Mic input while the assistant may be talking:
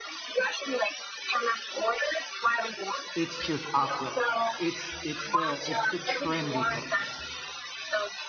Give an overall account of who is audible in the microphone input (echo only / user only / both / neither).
both